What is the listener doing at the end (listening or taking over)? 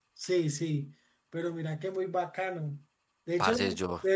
listening